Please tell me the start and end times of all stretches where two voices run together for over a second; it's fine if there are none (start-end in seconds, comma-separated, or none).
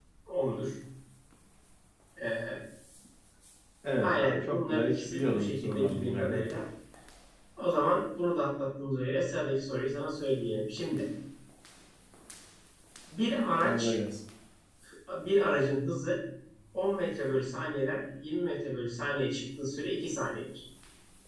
4.0-6.4